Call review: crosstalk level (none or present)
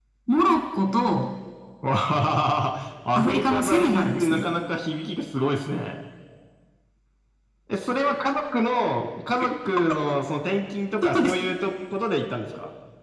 present